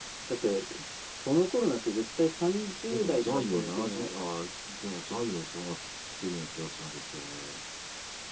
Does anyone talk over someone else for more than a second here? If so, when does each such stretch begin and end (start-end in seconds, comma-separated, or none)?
2.9-4.1